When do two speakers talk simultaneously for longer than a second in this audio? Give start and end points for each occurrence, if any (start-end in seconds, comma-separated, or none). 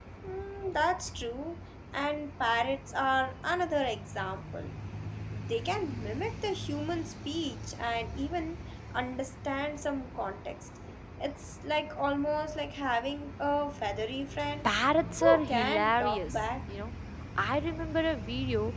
15.2-16.4